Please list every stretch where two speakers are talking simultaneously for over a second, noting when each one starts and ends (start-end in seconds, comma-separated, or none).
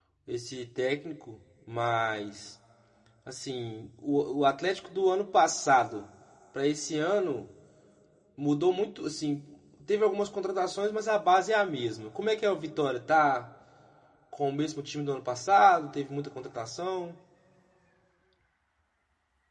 none